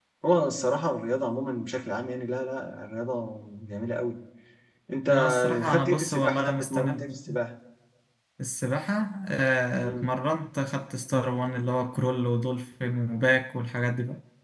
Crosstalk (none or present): present